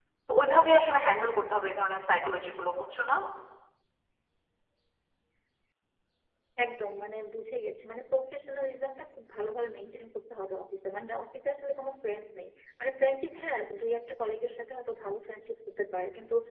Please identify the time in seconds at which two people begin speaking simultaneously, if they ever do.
none

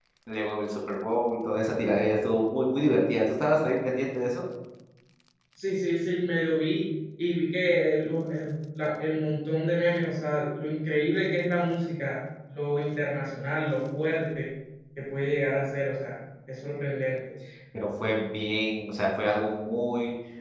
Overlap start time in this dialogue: none

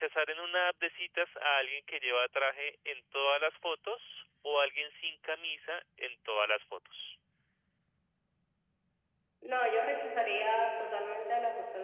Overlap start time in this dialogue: none

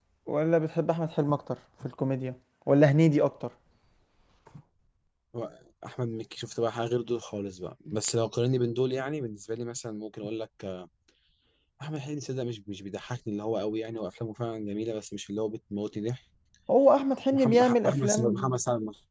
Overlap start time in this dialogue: 17.3 s

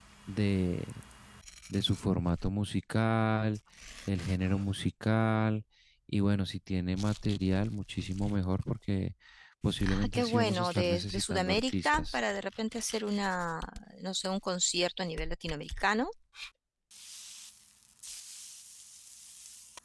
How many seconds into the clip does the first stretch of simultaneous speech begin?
9.8 s

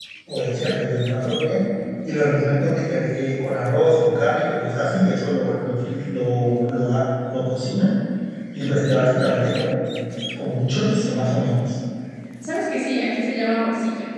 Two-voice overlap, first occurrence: none

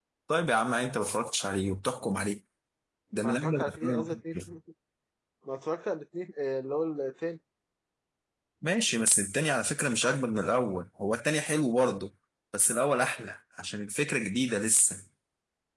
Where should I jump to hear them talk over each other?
3.2 s

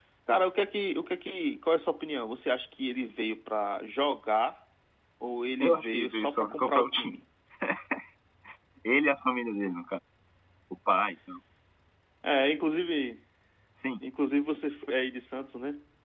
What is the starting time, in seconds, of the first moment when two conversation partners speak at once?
5.6 s

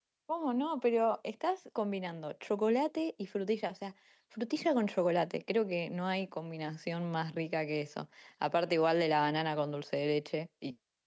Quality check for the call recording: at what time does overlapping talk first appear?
none

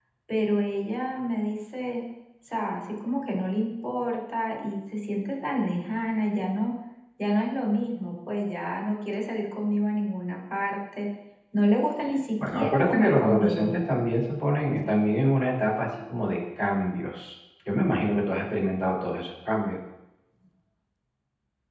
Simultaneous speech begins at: 12.4 s

